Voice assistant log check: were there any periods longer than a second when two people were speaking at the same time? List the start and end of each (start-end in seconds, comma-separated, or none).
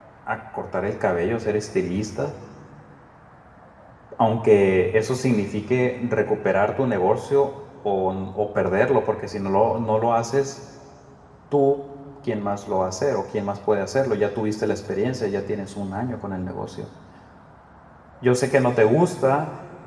none